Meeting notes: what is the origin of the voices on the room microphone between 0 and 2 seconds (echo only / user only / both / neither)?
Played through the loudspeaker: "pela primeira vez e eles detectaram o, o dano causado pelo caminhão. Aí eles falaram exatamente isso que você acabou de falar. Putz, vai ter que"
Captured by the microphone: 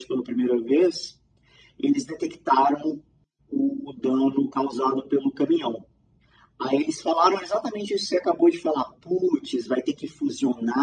echo only